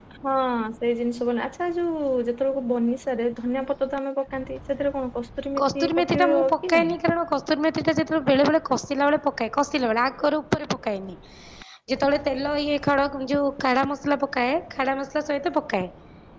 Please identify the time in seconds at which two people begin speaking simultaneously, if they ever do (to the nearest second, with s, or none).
6 s